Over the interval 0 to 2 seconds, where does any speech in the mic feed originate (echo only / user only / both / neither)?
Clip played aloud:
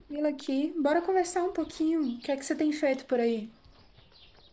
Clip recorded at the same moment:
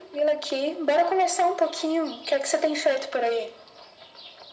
echo only